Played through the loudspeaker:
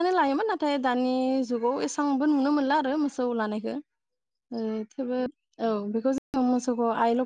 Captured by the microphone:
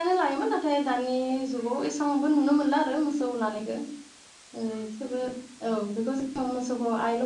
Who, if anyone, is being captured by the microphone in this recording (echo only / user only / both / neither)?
echo only